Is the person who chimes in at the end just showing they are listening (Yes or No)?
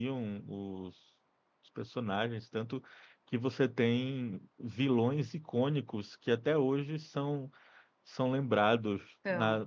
Yes